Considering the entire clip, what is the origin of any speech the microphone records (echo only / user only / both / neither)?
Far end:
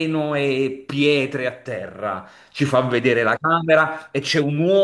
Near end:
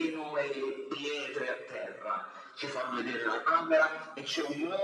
echo only